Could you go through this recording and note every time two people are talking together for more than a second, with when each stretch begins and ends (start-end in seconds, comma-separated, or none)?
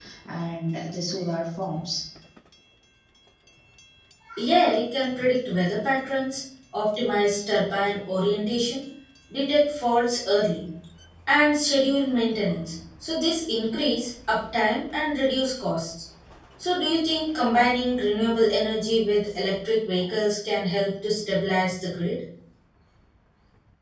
none